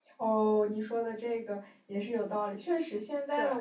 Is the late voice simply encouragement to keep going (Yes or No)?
Yes